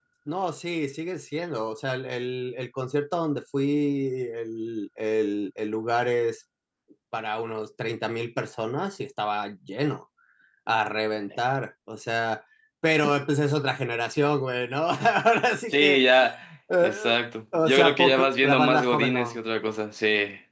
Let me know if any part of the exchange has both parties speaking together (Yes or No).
Yes